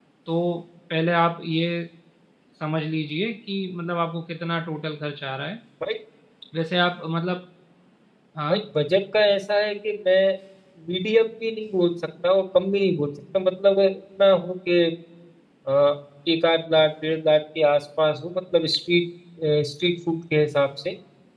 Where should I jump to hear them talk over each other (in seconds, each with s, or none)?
none